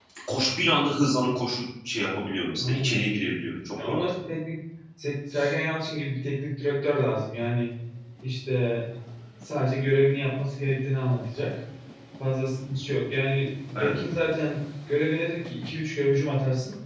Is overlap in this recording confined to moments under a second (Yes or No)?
Yes